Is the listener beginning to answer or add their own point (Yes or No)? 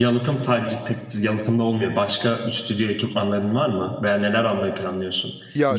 No